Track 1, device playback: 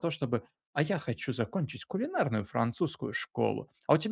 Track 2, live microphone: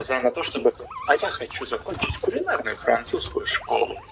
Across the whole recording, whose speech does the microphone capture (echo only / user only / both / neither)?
echo only